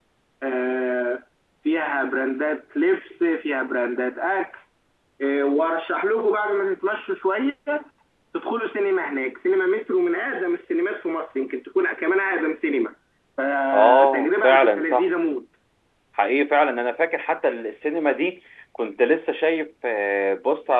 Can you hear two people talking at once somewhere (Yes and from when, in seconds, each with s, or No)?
Yes, from 13.7 s